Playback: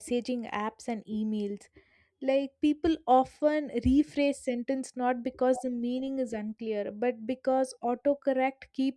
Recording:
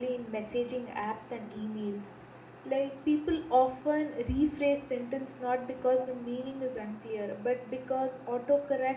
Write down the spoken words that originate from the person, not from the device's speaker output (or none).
none